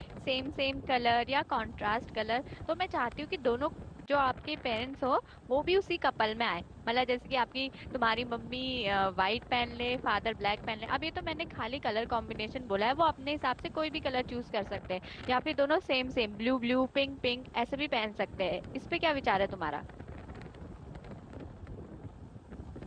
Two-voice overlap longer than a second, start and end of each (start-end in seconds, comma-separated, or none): none